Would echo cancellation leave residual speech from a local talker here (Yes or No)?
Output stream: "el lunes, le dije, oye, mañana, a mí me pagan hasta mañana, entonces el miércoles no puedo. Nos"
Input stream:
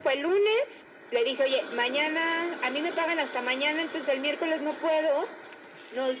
No